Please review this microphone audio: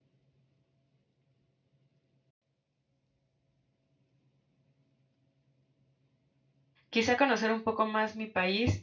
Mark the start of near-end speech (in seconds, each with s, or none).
6.9 s